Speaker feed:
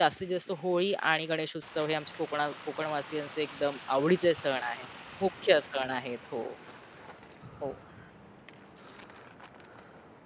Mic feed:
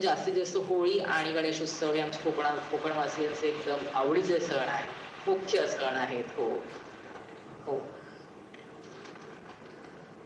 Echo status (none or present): present